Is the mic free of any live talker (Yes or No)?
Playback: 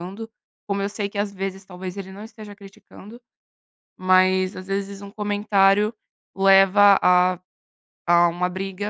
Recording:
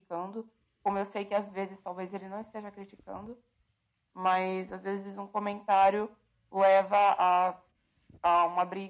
Yes